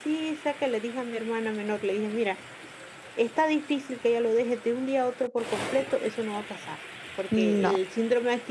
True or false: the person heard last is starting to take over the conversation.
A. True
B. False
B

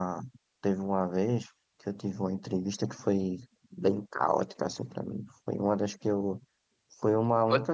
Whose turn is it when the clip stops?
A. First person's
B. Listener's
A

